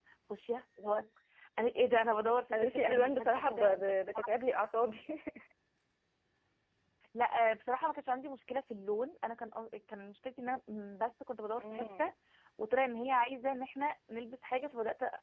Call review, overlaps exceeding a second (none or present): present